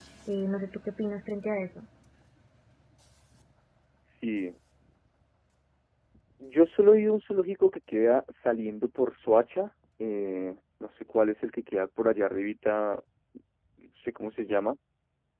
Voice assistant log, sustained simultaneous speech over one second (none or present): none